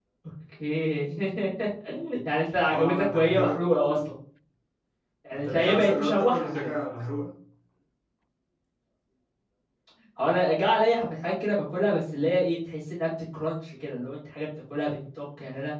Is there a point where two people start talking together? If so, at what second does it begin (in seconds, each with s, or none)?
2.7 s